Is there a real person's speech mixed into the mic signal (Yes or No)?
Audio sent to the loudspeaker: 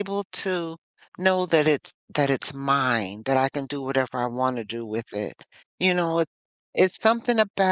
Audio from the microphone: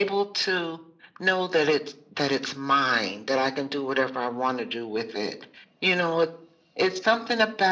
No